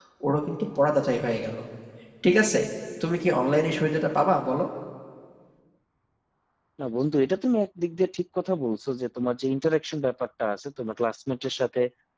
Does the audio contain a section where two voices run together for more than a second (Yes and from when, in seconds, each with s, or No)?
No